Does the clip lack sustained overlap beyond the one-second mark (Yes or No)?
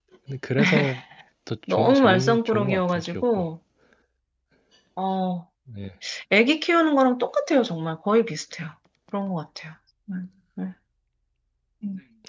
No